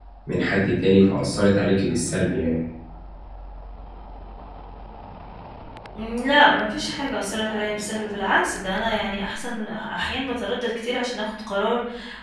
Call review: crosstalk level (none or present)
none